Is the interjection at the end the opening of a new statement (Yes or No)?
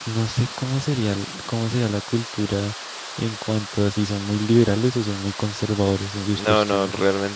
Yes